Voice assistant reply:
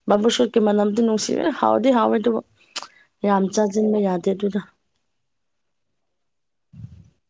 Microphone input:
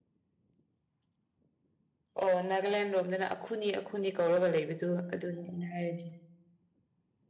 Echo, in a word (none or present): none